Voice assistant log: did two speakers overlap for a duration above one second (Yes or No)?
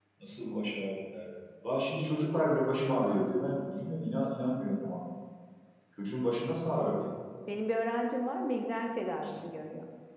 No